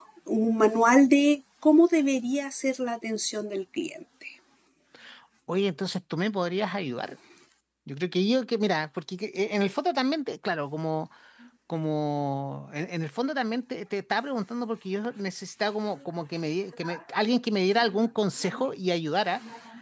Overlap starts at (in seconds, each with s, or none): none